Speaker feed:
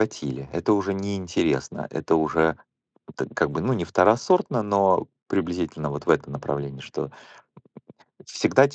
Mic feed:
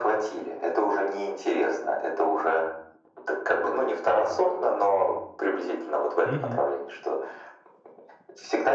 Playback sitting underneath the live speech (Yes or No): No